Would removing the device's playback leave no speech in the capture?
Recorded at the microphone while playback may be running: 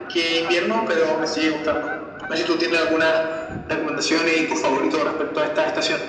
Yes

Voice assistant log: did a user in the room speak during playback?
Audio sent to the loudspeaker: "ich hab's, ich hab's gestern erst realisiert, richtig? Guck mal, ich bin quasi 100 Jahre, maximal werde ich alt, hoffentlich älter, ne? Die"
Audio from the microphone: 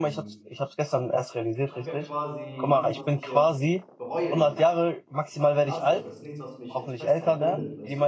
Yes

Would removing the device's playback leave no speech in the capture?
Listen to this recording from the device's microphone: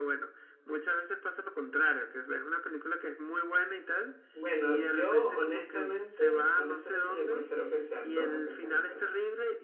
No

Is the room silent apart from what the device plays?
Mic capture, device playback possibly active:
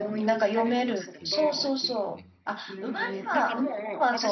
No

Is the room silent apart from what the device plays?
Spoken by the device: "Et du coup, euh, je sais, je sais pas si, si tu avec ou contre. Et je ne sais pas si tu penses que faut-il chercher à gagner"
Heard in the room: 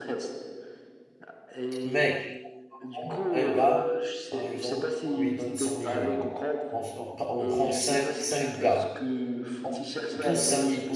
No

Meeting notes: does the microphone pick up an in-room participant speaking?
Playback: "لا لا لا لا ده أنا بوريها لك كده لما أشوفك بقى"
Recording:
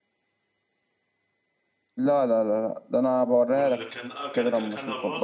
Yes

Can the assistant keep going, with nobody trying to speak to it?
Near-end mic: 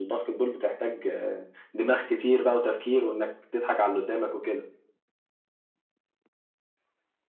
Yes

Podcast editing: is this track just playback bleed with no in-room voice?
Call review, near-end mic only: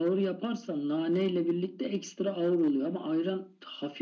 Yes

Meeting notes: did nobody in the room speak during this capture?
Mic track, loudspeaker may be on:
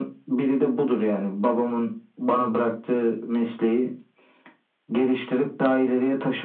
Yes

